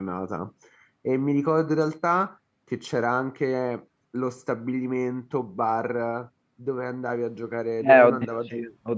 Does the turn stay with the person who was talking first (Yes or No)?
No